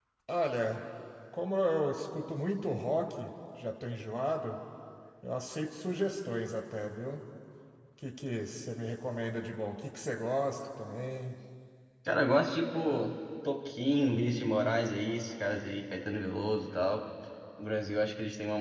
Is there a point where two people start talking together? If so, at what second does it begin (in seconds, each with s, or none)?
none